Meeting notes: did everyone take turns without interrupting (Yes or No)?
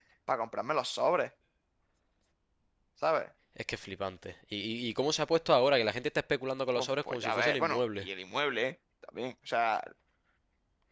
No